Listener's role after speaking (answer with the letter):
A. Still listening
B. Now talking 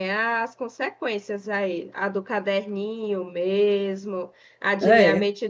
A